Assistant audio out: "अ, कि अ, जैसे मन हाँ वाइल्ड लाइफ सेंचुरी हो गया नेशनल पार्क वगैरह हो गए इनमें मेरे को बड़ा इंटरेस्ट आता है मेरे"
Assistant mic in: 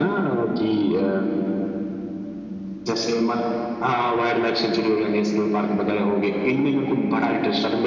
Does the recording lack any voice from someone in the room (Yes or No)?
Yes